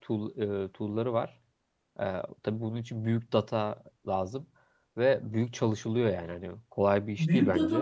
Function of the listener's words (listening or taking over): taking over